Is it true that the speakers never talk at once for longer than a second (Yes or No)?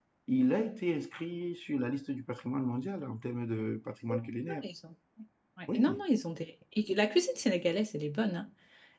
Yes